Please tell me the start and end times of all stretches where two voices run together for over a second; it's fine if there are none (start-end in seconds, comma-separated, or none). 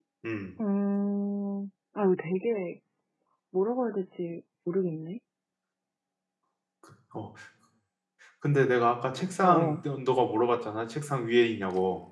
none